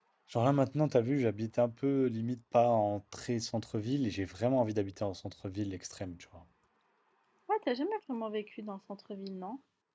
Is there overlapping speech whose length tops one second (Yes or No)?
No